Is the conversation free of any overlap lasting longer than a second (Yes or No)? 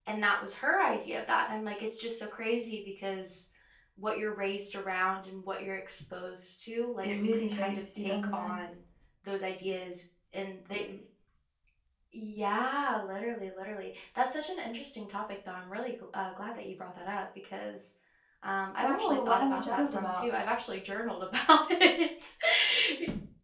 No